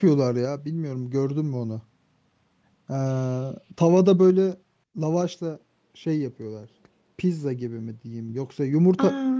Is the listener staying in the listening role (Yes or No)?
Yes